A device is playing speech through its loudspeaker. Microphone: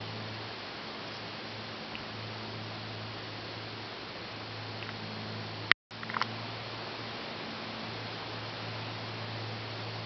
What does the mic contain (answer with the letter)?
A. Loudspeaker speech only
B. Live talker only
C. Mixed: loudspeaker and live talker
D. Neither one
D